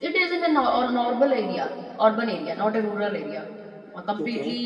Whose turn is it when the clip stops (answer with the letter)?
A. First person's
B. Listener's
A